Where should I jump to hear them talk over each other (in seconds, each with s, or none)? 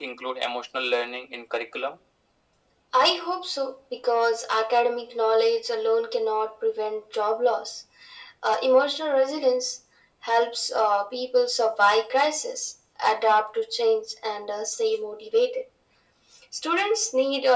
none